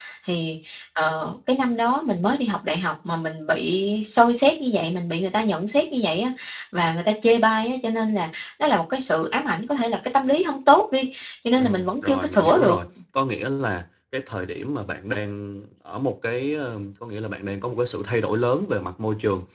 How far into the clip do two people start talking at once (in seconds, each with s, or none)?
11.6 s